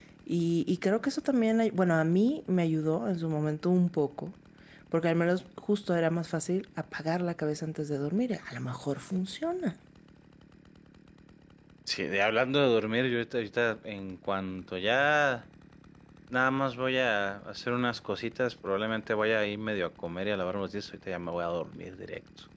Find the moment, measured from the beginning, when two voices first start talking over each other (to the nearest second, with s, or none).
none